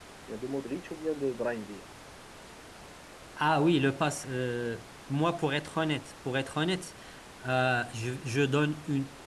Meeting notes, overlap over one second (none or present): none